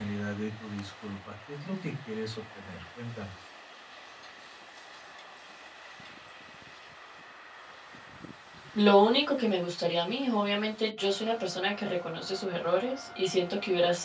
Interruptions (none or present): none